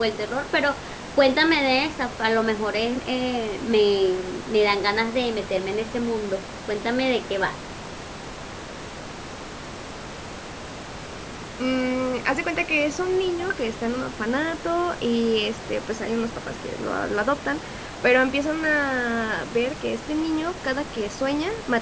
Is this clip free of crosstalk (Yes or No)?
Yes